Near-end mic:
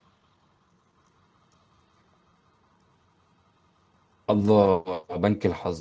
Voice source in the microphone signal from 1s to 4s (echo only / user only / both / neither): neither